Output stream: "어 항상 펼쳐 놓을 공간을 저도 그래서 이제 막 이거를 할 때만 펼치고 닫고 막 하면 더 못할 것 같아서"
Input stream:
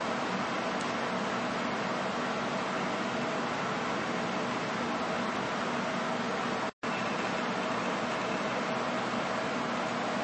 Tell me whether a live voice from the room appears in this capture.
No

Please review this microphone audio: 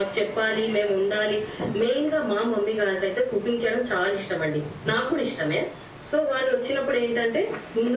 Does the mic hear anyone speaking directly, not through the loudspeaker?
No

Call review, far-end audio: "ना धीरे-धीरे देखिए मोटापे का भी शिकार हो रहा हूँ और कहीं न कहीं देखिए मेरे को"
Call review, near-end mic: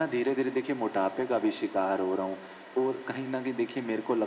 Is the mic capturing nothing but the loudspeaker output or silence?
Yes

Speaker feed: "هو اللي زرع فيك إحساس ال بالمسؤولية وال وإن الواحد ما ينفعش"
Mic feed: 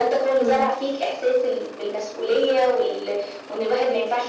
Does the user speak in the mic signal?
Yes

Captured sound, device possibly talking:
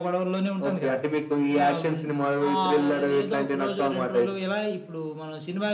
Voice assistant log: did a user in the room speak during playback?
No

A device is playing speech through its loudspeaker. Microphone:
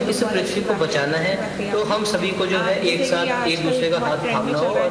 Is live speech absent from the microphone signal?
No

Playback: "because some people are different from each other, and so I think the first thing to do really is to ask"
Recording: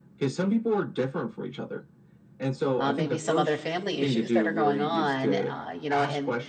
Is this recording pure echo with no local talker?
No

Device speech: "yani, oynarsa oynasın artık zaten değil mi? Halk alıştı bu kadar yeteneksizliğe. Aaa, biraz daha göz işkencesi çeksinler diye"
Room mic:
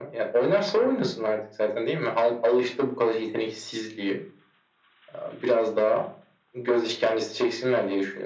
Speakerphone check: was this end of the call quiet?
Yes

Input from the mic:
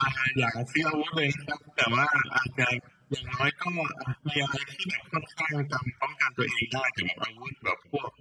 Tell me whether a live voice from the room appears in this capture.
No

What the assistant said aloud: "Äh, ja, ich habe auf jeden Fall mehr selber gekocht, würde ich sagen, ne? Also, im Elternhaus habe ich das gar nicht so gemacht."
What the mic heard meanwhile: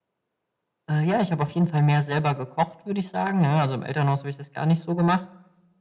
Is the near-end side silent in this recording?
Yes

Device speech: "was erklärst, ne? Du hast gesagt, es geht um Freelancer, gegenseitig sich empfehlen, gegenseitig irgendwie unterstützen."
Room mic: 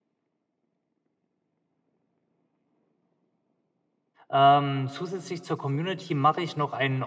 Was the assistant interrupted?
Yes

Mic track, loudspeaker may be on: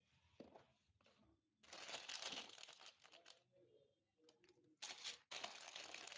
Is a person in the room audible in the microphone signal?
No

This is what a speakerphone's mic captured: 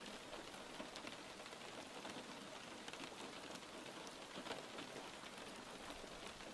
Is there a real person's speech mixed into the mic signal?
No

